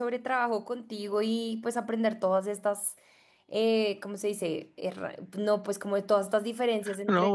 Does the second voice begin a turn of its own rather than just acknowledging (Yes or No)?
Yes